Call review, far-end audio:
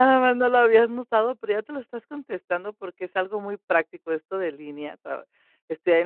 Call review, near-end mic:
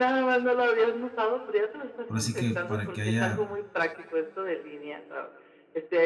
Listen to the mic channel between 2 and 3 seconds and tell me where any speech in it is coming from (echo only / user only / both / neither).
both